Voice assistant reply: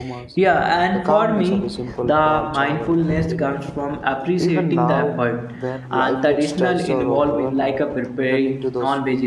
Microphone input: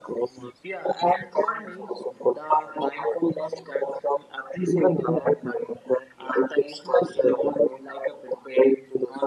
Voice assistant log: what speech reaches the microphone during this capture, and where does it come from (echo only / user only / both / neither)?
echo only